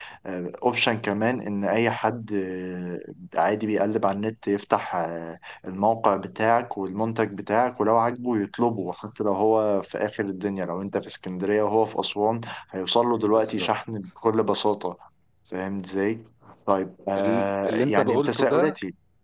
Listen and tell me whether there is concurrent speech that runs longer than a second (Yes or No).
Yes